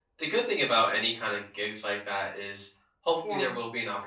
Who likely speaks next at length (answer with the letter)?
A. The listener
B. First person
B